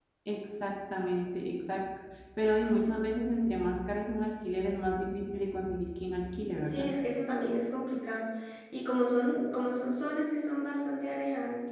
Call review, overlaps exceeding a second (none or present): none